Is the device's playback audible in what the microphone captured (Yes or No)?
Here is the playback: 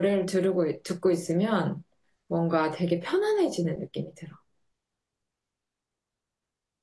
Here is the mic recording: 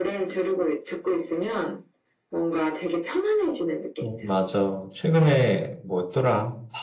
Yes